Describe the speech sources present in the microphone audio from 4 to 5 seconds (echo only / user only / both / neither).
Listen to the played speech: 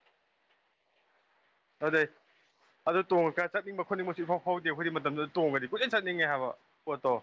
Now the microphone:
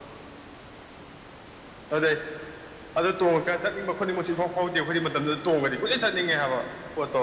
echo only